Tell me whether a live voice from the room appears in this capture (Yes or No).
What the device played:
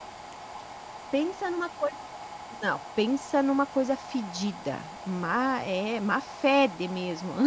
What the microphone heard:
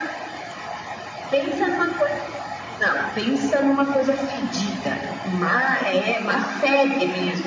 No